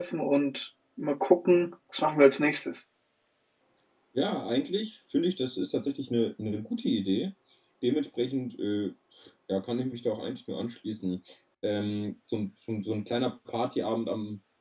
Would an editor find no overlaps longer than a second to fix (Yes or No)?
Yes